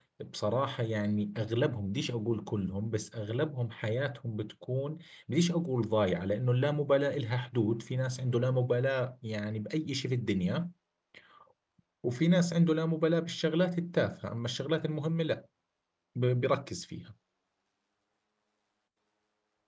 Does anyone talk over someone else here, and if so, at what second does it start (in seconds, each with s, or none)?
none